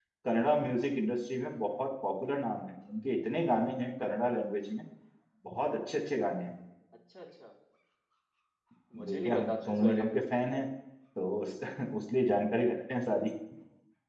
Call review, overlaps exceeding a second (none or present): present